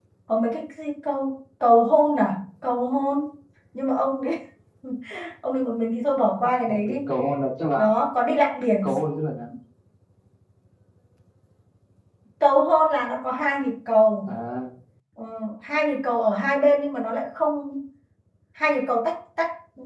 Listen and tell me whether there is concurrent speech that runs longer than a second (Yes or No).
No